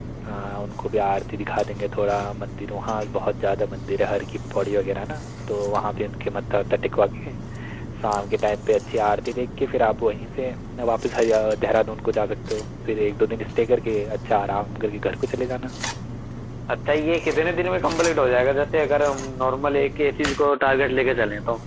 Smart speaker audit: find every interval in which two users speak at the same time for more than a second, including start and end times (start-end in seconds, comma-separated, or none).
none